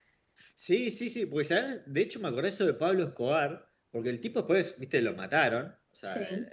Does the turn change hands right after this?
No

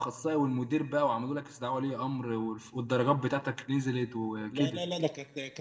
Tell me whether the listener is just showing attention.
No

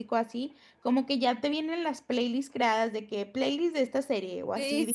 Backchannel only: No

